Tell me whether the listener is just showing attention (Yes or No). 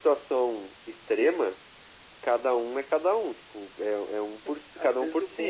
No